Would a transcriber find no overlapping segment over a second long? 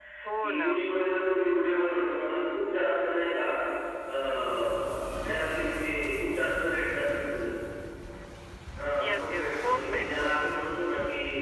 No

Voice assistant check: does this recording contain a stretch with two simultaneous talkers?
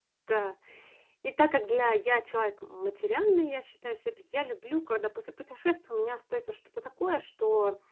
No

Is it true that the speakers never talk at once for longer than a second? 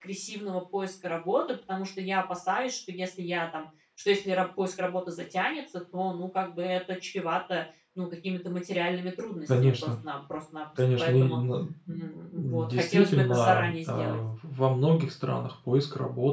No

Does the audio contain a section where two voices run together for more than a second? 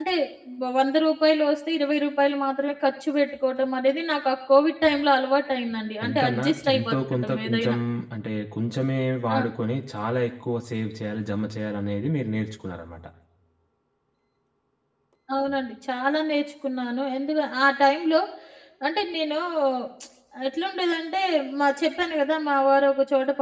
Yes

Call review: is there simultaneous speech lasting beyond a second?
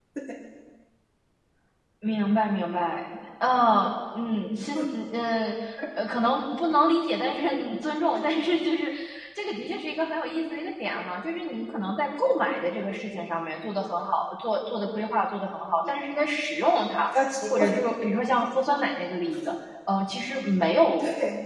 No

